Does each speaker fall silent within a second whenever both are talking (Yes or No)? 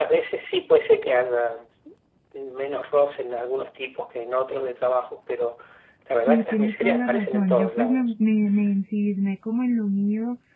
No